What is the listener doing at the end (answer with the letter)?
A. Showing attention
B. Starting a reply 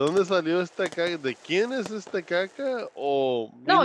B